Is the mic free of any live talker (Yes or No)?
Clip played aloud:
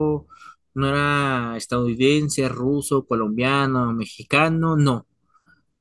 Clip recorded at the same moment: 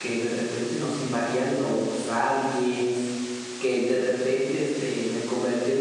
No